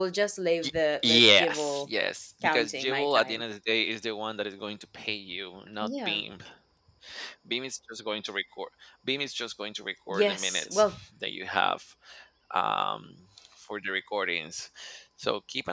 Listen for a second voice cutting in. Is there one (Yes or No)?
Yes